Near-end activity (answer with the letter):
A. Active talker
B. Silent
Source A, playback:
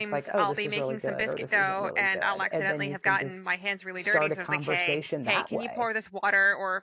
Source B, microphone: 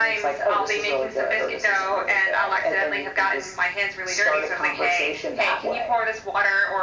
B